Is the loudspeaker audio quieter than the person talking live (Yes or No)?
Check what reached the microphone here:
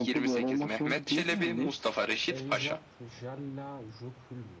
No